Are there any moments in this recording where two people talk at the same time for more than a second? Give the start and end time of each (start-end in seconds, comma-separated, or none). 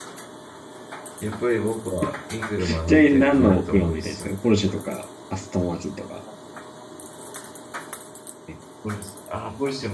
2.9-4.3